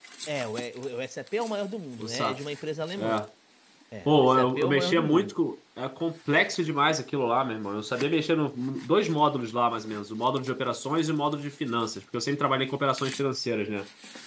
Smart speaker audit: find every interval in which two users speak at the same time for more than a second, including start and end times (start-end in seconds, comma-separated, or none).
4.1-5.3